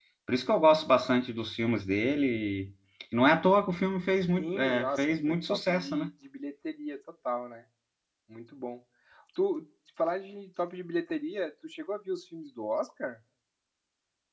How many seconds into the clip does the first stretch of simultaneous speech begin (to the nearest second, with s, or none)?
4 s